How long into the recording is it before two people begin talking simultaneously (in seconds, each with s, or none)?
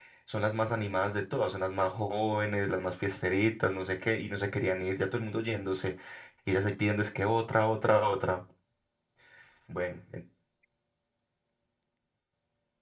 none